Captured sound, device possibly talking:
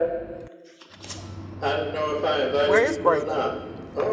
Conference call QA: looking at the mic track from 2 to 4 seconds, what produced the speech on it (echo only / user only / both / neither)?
both